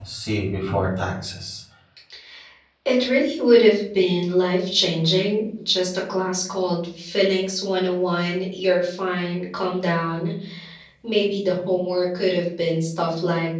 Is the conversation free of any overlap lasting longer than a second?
Yes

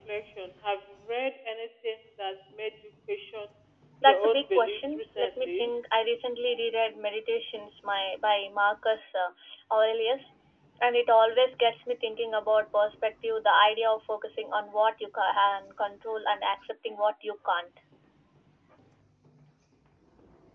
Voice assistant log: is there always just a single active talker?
No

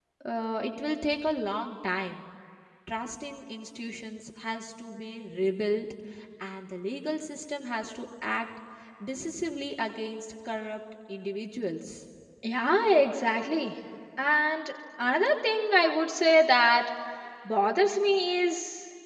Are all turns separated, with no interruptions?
Yes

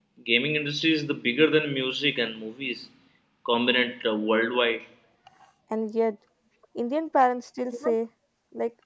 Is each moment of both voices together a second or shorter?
Yes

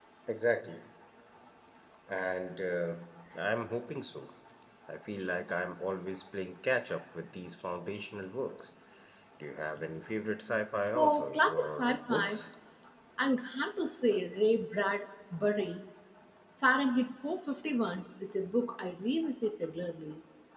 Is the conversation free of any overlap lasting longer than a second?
No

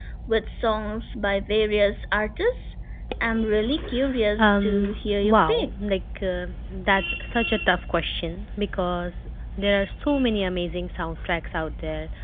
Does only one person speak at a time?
No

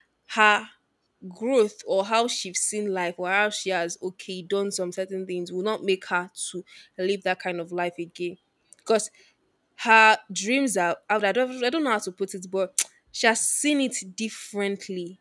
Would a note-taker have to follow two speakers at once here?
No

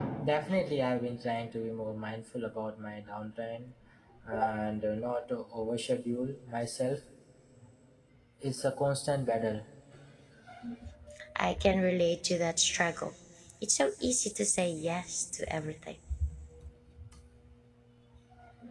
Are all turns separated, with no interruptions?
Yes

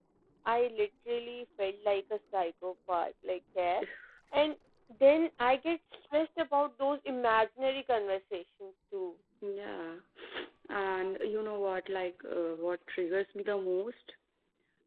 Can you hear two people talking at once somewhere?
No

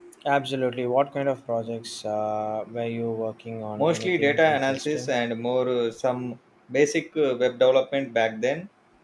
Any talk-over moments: Yes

